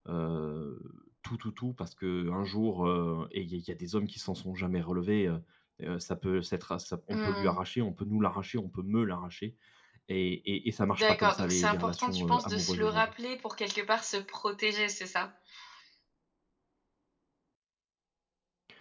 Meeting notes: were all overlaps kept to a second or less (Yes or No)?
No